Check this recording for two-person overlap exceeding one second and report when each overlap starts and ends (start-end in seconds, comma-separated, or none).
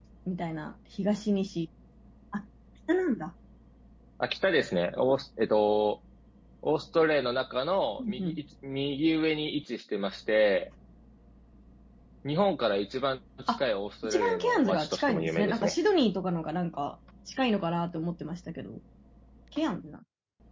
14.0-15.8